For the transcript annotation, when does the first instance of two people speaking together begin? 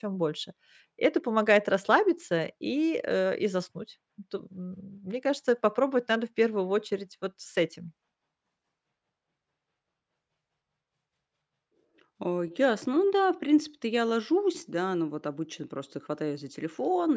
none

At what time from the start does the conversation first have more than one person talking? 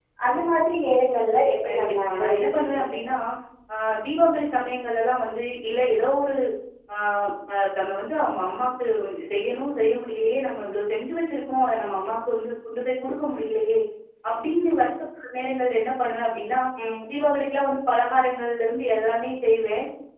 1.6 s

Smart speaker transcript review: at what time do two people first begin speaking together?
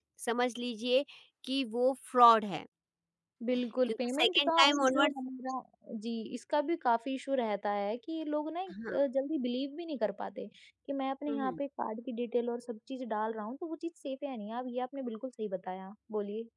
3.9 s

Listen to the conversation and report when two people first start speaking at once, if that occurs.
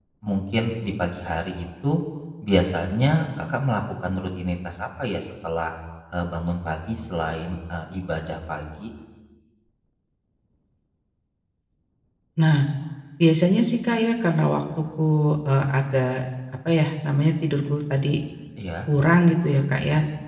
none

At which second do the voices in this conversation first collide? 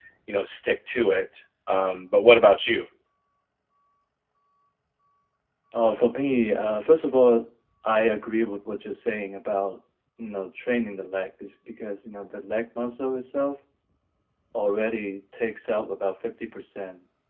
none

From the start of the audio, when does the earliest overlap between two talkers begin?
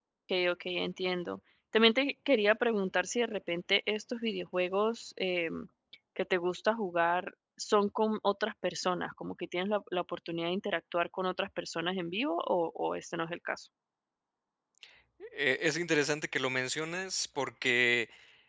none

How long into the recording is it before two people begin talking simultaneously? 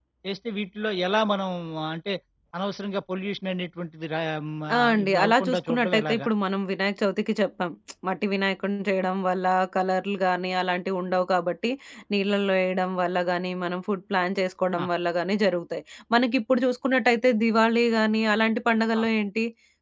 4.9 s

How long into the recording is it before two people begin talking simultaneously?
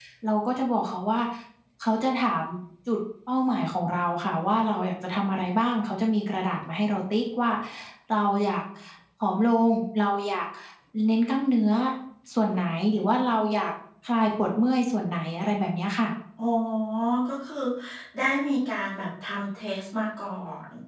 none

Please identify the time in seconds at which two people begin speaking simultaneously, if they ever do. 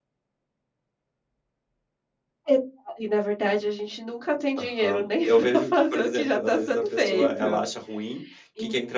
4.8 s

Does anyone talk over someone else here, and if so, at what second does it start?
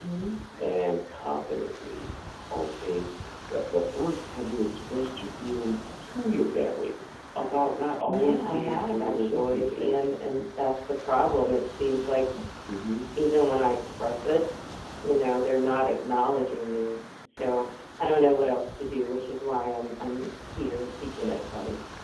8.1 s

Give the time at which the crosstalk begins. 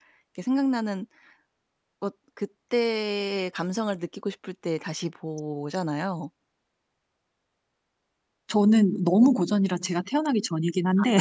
none

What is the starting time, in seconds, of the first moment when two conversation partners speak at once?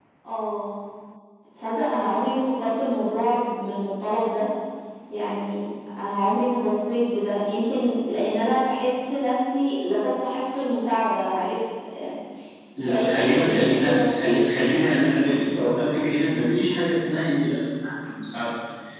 12.9 s

